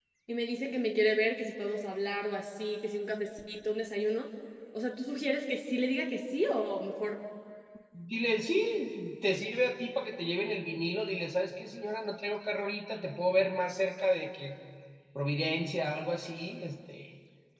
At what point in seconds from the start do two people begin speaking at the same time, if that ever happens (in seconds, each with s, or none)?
none